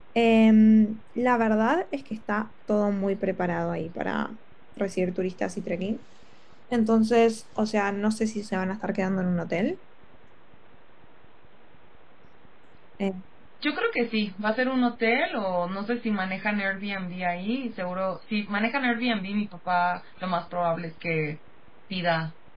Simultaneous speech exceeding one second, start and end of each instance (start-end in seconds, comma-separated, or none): none